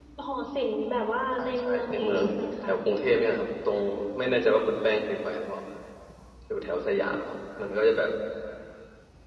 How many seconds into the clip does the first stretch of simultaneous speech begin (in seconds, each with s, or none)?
1.4 s